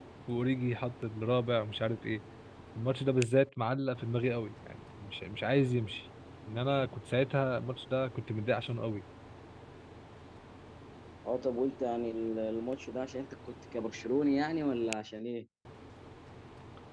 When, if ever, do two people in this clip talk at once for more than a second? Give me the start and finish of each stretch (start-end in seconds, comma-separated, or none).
none